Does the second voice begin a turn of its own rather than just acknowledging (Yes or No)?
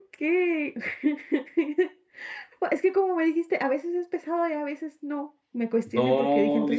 Yes